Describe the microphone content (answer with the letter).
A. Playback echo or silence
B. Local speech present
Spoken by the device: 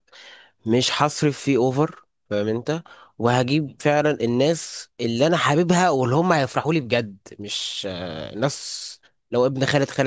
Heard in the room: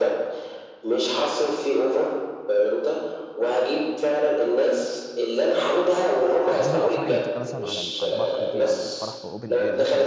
B